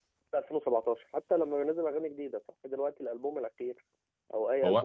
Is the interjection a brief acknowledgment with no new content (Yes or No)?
Yes